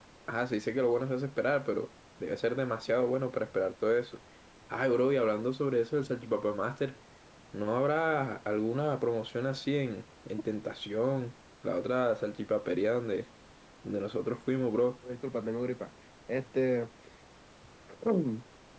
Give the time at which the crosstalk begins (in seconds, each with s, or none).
none